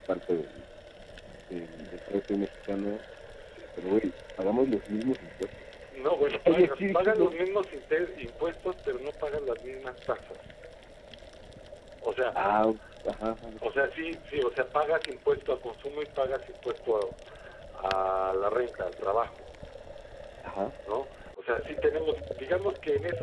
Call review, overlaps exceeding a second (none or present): present